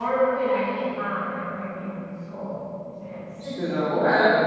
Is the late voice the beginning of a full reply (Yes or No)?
Yes